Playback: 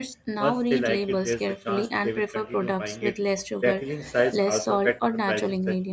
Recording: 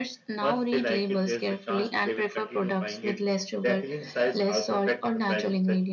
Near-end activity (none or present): none